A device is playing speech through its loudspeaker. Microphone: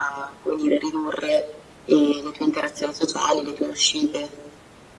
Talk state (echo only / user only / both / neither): echo only